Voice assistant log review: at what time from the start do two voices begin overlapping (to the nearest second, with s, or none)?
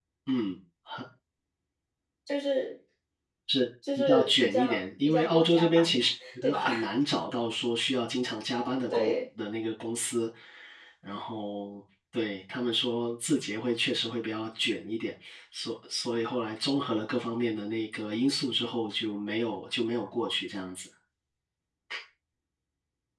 4 s